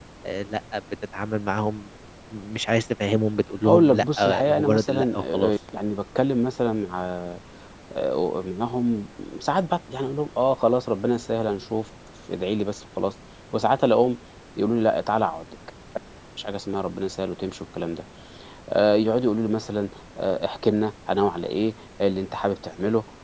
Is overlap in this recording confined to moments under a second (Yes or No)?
No